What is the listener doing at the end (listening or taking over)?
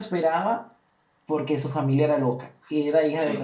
listening